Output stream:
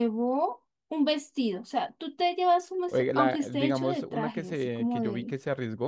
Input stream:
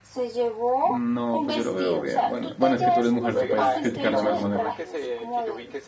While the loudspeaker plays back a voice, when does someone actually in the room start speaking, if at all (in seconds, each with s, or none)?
0.8 s